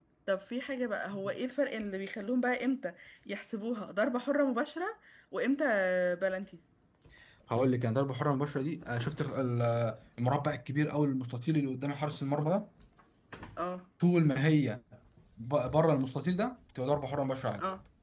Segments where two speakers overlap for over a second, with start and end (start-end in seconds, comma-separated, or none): none